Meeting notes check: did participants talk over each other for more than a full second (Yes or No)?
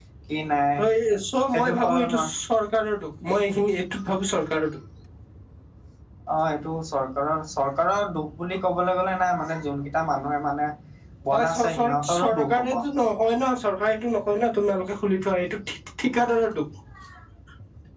Yes